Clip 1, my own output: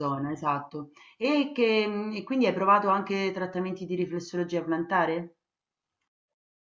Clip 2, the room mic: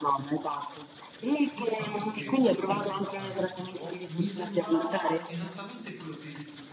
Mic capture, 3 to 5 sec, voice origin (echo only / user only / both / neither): both